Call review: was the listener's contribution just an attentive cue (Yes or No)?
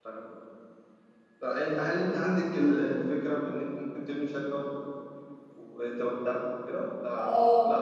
No